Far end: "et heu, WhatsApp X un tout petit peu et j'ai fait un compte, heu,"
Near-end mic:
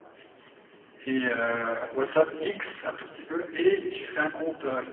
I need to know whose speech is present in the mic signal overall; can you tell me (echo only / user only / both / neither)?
echo only